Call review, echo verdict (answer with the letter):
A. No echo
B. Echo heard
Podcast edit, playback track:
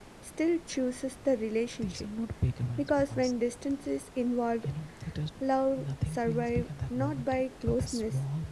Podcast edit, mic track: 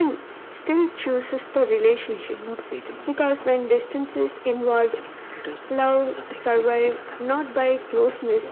B